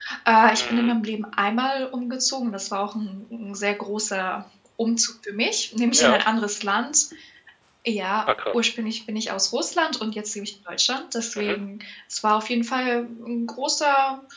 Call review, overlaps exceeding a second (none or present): none